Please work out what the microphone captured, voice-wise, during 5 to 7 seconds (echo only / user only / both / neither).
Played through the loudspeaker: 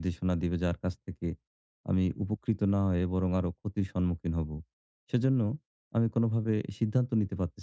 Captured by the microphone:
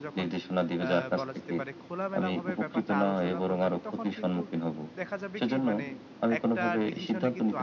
both